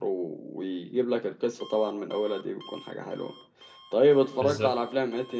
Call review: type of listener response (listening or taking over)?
listening